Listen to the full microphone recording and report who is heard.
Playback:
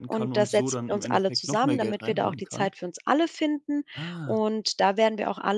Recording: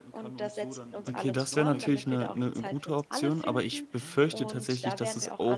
both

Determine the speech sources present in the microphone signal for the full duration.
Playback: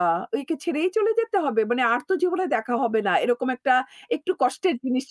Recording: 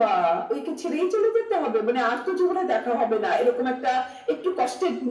echo only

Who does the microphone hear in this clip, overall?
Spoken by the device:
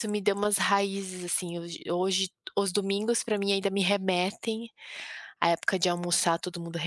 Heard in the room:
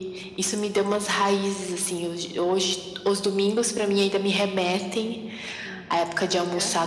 both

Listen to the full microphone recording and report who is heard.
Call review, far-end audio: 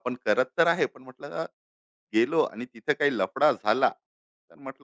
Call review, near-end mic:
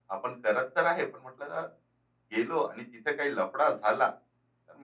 echo only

